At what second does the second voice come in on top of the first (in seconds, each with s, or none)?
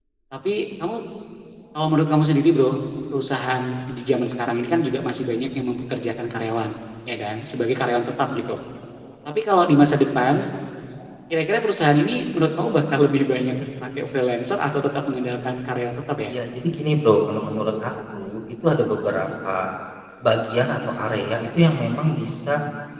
none